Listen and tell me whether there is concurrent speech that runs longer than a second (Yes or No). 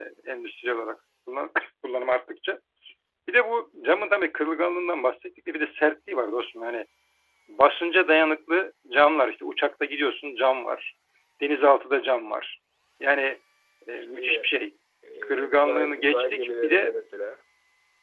Yes